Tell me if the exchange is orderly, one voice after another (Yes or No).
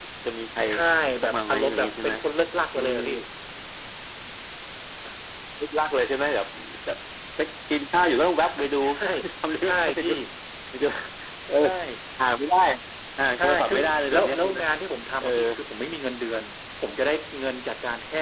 No